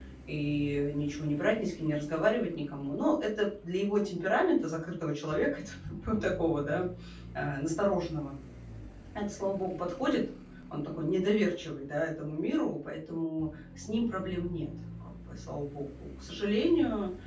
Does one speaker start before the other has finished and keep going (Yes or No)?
No